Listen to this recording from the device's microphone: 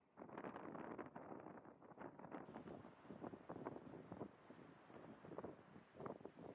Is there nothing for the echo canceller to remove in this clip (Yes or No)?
Yes